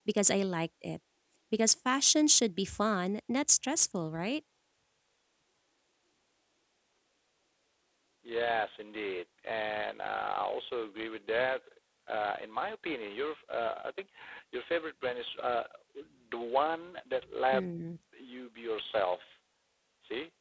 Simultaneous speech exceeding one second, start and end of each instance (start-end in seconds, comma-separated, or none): none